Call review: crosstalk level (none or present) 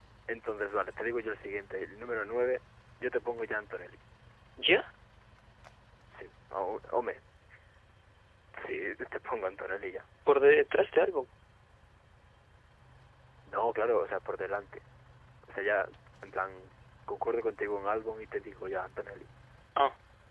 none